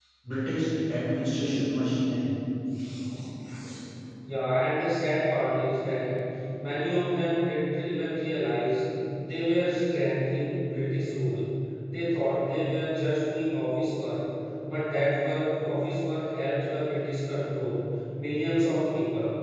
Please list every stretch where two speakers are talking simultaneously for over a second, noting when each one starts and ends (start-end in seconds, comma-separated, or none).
none